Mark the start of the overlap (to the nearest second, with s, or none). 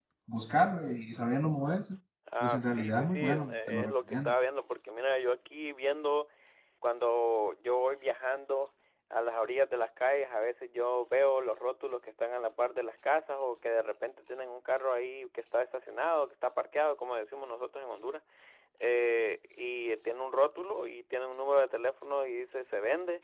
2 s